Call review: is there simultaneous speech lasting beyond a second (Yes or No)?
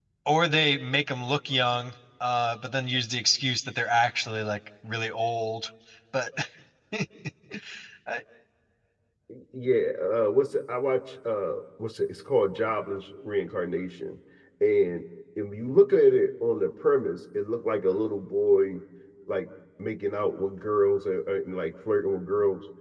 No